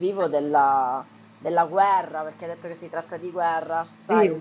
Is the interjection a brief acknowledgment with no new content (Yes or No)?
Yes